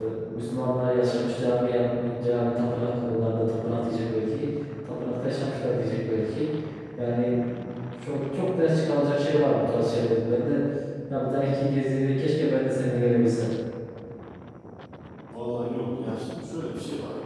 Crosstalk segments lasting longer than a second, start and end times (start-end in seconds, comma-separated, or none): none